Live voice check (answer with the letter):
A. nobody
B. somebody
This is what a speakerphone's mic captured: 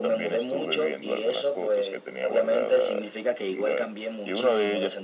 A